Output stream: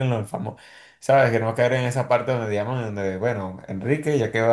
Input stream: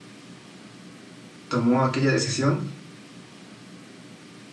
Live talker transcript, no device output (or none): tomó aquella decisión.